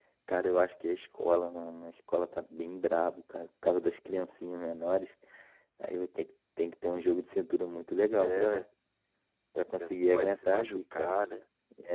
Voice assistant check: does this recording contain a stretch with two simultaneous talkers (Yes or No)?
Yes